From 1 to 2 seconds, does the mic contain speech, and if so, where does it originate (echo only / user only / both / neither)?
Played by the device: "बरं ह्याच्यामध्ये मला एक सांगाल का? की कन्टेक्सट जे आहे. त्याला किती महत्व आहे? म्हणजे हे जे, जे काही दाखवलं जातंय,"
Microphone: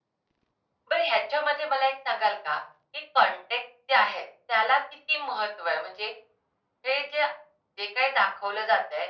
echo only